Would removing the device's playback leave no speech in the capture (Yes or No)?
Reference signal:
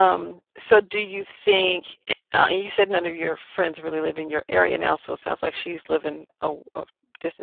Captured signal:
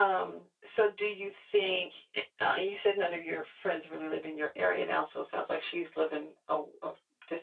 Yes